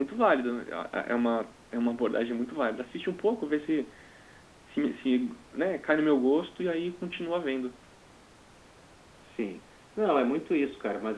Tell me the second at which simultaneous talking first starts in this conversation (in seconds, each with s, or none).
none